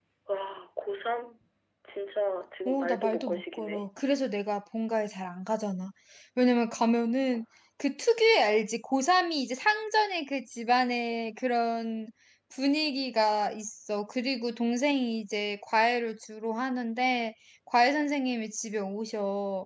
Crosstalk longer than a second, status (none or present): present